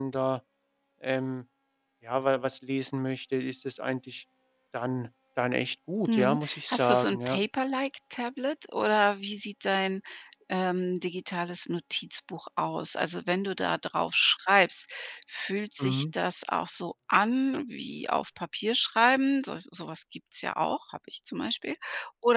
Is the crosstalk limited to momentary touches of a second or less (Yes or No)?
No